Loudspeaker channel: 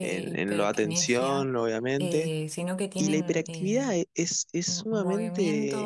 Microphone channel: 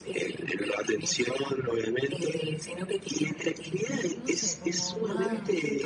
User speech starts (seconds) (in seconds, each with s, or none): 3.9 s